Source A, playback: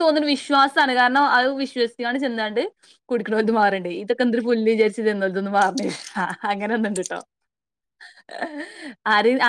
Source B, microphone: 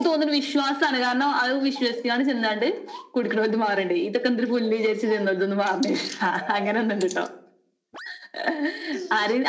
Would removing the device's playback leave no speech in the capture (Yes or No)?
Yes